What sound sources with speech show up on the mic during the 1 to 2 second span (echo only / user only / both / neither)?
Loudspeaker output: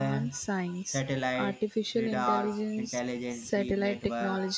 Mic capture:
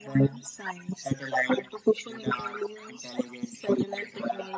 echo only